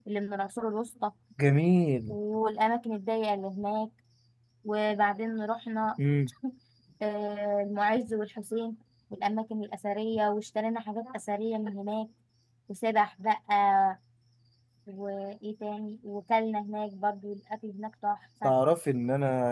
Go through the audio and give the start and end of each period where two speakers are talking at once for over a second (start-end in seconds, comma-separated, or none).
none